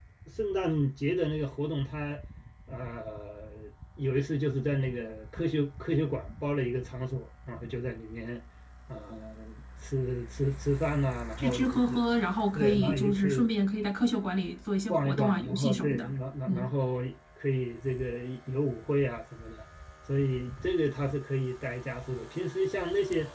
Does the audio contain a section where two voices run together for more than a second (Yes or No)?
Yes